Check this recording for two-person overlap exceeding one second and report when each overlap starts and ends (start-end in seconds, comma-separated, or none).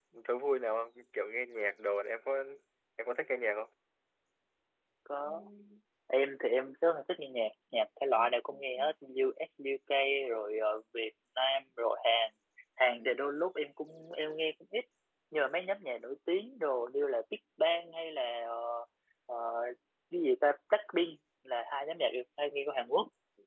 none